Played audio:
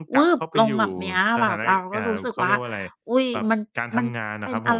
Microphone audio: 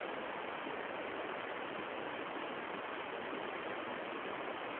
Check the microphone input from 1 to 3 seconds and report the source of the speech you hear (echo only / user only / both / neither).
neither